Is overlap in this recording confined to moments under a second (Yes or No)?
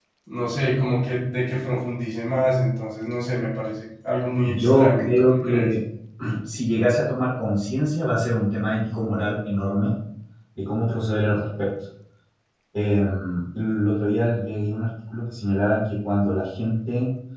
No